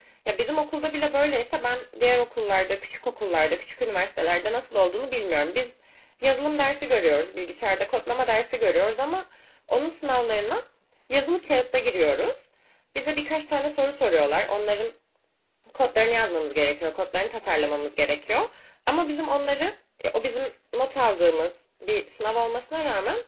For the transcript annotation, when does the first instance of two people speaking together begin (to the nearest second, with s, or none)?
none